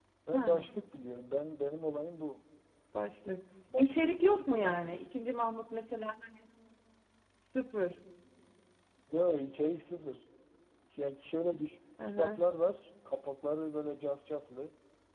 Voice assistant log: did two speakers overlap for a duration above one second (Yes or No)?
Yes